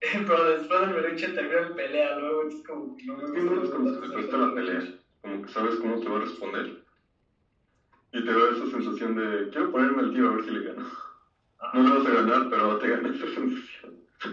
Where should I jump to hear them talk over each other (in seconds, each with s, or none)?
3.3 s